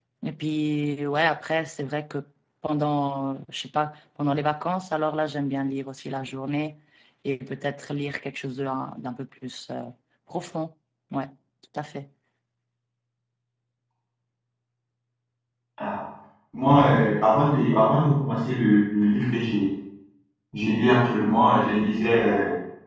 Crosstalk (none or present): none